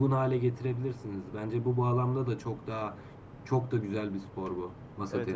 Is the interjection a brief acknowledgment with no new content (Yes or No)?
No